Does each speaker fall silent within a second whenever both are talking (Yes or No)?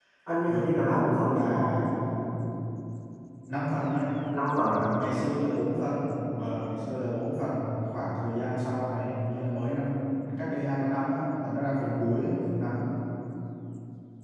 No